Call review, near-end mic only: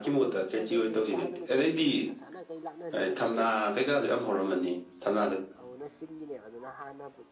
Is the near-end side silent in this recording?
No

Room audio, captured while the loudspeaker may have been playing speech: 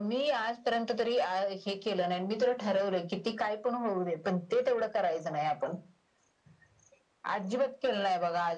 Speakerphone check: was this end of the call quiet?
Yes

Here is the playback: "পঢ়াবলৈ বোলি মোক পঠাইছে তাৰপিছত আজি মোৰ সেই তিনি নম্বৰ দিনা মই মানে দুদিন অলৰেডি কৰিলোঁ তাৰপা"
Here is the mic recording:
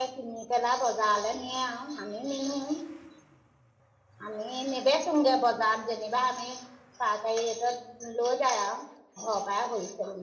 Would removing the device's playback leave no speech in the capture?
No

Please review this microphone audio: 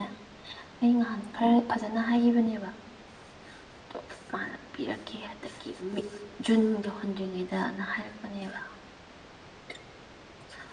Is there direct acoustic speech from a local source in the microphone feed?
Yes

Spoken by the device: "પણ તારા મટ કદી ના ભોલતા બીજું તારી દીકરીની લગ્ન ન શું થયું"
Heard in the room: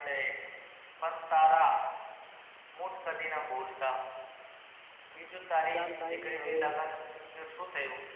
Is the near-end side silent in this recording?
No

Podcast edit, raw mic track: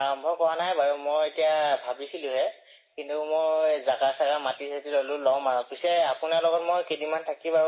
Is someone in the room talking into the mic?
No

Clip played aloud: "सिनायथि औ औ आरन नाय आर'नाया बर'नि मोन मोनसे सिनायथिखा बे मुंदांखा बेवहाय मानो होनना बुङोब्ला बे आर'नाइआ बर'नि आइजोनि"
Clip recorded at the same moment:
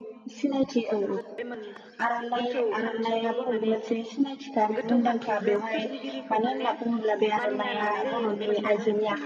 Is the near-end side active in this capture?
Yes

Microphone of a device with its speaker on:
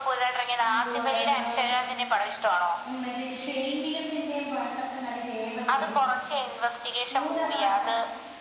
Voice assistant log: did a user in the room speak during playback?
Yes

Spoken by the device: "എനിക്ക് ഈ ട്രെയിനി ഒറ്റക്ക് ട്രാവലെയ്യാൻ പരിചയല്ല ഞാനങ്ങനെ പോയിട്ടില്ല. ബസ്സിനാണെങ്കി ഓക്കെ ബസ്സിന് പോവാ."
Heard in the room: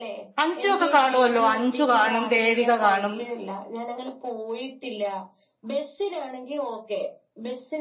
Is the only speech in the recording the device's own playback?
No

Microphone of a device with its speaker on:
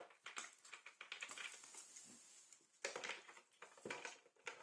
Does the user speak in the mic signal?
No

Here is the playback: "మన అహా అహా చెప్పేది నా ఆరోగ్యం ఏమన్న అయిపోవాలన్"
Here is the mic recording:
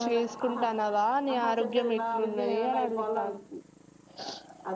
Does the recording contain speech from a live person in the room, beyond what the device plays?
Yes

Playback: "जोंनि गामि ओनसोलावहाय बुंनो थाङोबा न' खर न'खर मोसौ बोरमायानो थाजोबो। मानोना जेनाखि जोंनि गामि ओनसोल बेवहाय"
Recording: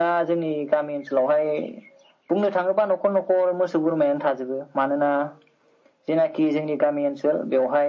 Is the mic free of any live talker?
Yes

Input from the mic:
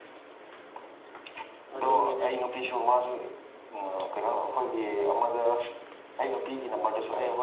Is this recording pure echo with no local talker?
No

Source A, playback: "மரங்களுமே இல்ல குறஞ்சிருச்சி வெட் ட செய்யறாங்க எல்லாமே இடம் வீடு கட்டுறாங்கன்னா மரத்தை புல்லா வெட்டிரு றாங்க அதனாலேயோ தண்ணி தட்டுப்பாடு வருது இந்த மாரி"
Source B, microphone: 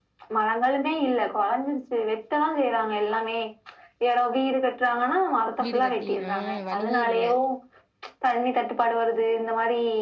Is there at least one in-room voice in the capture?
Yes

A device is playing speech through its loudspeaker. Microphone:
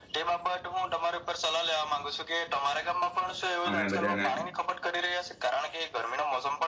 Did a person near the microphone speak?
Yes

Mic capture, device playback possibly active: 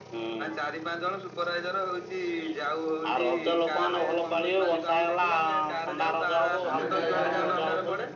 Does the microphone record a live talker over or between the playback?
Yes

